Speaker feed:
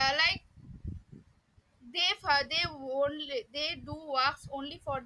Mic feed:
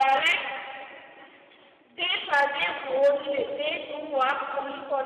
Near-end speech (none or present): none